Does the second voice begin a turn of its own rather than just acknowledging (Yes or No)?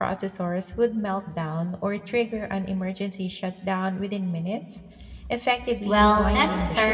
Yes